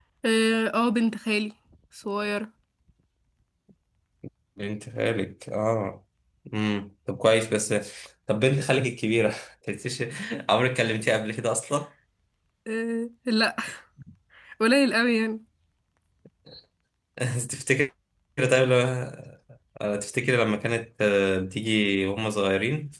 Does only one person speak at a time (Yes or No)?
Yes